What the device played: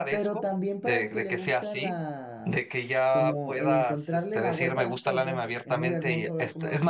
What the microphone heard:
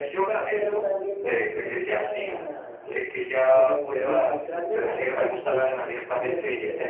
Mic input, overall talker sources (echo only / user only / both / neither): echo only